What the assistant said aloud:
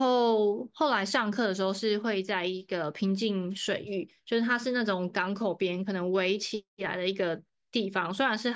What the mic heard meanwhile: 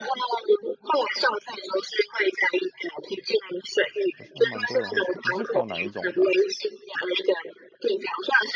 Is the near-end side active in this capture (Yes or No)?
Yes